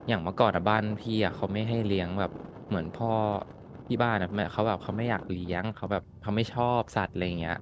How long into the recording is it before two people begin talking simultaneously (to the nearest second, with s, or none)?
none